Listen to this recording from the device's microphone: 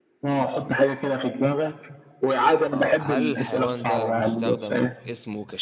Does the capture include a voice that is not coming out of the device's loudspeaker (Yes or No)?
Yes